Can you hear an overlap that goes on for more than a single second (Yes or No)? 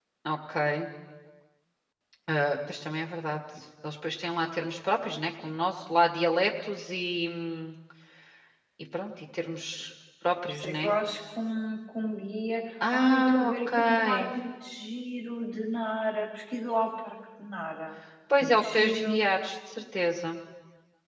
Yes